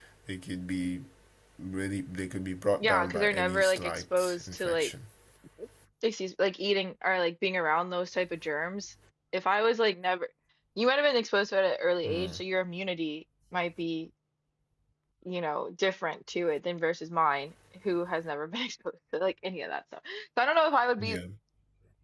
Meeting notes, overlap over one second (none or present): present